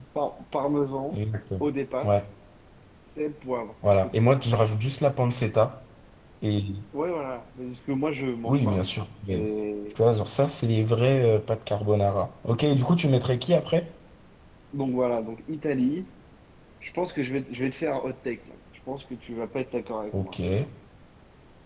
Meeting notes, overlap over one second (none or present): none